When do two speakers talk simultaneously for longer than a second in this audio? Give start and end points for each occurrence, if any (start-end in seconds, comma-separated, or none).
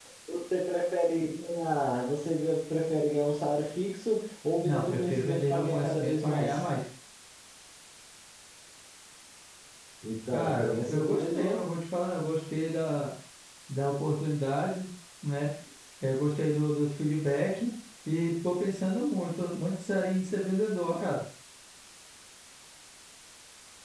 4.6-6.6, 10.3-11.6